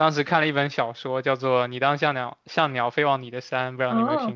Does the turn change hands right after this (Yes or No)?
Yes